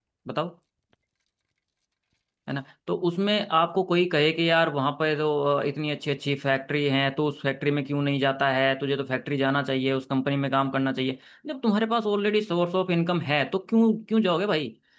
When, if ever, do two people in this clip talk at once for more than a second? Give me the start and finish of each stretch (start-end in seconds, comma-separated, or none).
none